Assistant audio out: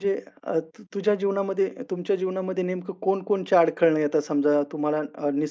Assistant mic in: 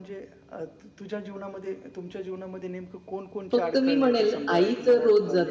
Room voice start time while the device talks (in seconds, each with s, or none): 3.5 s